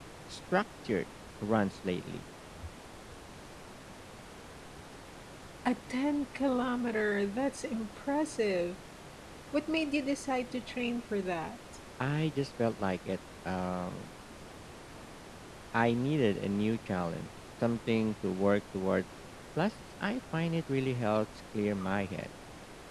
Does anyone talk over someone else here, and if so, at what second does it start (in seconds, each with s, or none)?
none